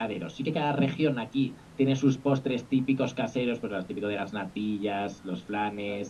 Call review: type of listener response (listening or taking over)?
listening